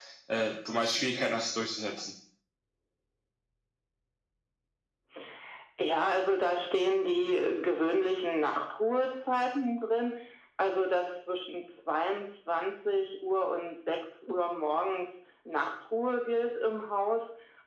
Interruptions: none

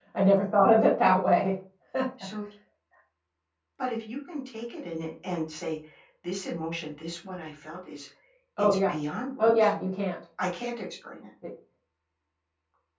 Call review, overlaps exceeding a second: none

